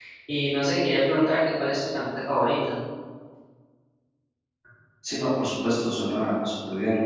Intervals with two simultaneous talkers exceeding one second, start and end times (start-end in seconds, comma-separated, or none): none